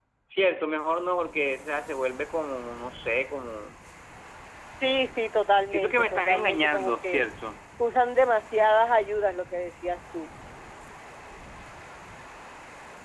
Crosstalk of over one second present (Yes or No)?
Yes